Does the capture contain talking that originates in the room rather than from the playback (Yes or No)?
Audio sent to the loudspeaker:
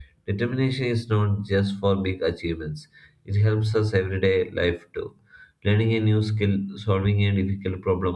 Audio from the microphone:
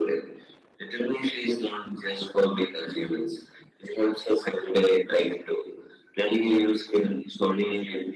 No